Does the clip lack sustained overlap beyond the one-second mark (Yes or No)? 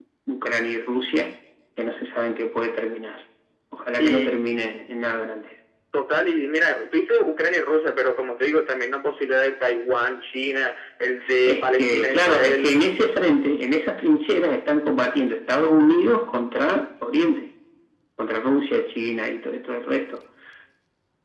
No